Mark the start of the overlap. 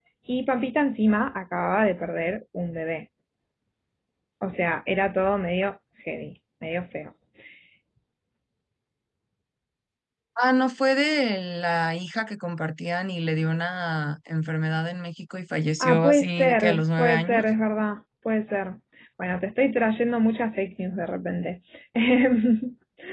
15.8 s

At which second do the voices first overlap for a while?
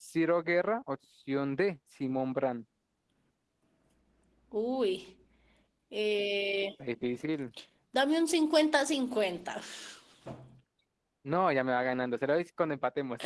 none

